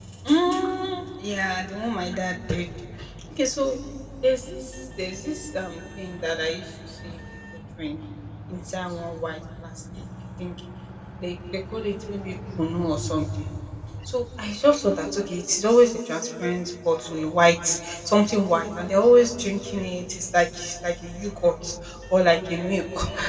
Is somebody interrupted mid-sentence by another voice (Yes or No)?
No